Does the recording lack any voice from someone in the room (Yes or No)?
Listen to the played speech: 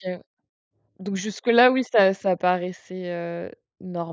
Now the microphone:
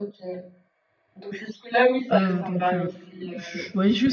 No